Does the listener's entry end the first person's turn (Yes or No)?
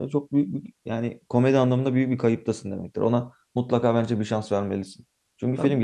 No